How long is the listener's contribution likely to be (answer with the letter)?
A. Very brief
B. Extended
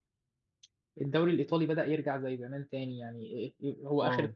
A